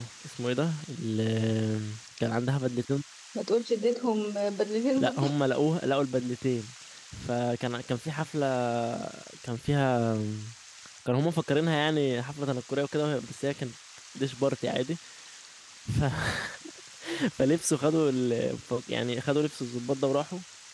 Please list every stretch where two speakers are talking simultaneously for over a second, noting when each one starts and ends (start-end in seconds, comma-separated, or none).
none